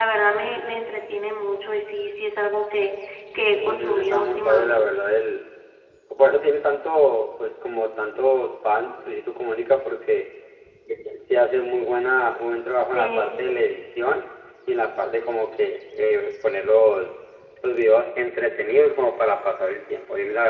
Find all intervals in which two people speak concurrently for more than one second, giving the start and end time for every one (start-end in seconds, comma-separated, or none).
3.5-4.9